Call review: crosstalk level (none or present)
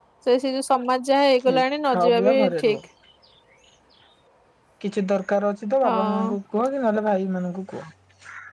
present